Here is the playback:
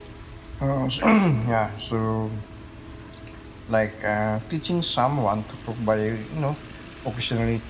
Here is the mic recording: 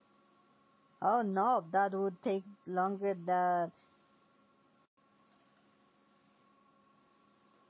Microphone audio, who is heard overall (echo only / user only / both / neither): user only